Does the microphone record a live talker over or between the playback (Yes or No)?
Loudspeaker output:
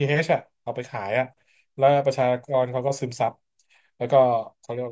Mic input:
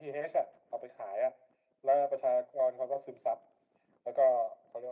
No